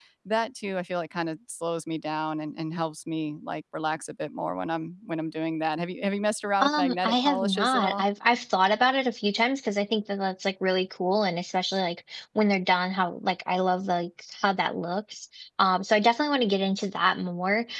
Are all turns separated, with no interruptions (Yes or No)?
No